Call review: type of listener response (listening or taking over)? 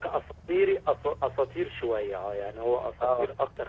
listening